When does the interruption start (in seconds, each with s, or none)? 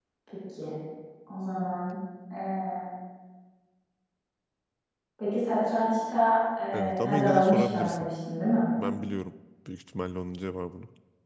6.7 s